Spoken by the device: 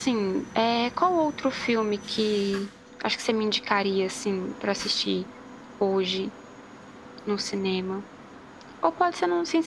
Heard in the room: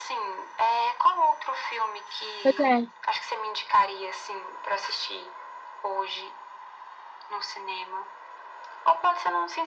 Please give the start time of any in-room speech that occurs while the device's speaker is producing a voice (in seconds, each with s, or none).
2.4 s